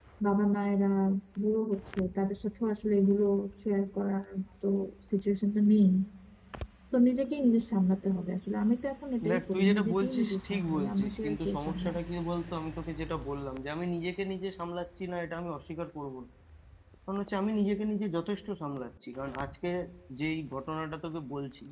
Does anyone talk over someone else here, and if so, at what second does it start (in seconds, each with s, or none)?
9.2 s